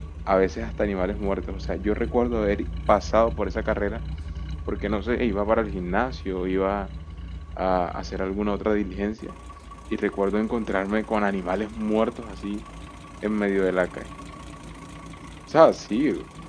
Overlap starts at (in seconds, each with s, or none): none